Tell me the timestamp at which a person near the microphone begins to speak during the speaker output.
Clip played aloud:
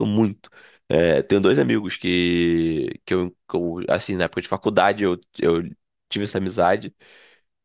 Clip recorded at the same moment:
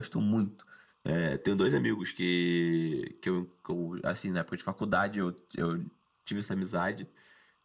none

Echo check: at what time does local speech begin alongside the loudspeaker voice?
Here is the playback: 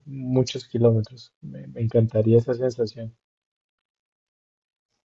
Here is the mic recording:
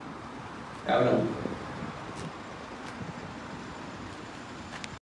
0.8 s

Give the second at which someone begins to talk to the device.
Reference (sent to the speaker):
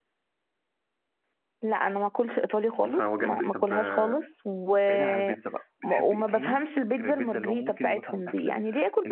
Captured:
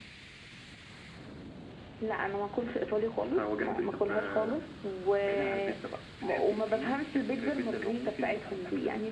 none

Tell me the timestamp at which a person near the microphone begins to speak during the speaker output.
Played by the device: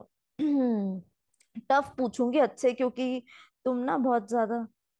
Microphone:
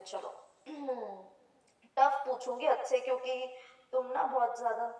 none

